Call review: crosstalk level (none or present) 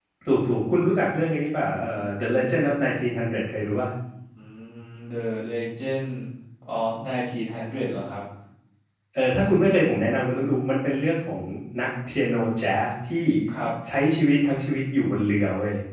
none